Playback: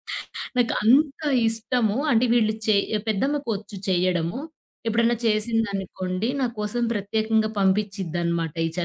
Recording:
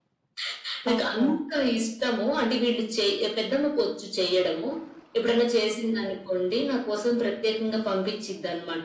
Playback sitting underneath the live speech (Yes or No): No